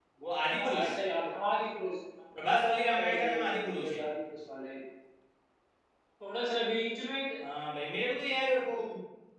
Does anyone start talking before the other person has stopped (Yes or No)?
Yes